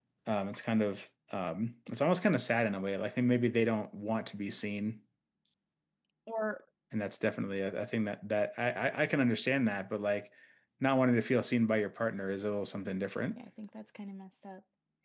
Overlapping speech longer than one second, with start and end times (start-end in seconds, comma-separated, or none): none